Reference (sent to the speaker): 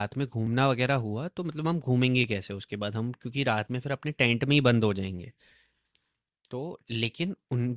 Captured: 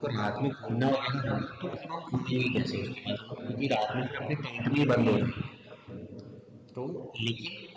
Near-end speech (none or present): none